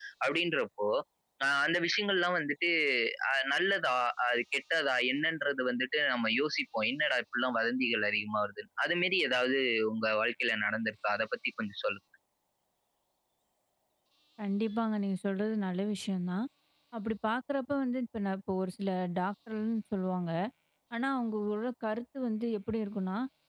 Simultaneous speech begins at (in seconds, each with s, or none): none